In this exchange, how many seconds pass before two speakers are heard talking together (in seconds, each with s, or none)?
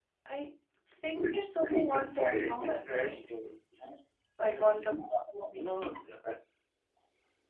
1.9 s